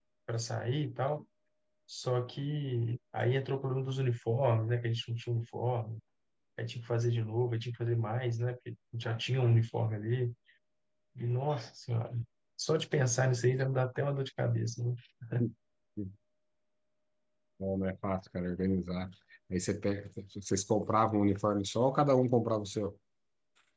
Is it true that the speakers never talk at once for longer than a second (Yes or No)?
Yes